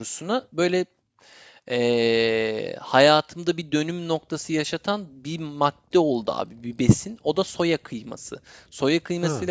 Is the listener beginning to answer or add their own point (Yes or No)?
No